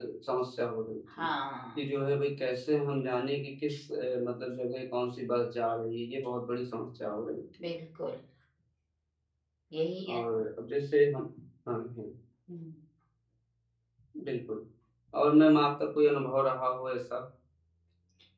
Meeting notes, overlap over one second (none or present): none